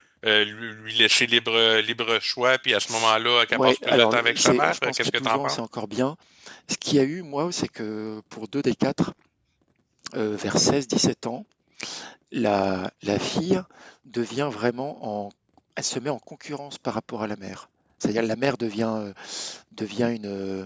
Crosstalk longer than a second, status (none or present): present